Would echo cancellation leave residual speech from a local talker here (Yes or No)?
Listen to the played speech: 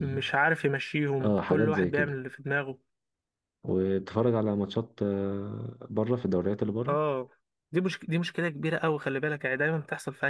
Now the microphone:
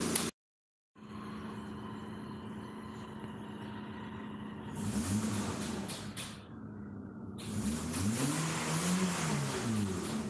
No